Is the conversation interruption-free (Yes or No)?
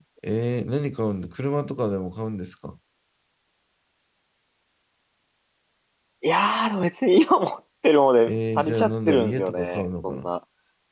No